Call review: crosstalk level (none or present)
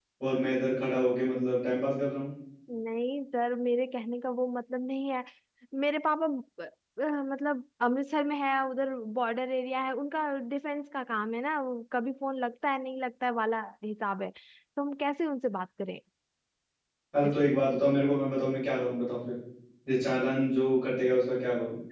none